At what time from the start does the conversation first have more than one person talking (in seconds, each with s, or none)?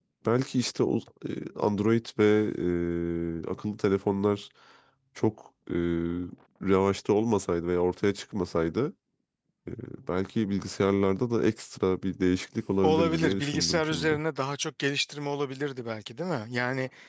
12.8 s